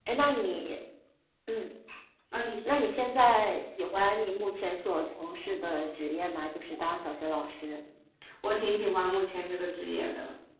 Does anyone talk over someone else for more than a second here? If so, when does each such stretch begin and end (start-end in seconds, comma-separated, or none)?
none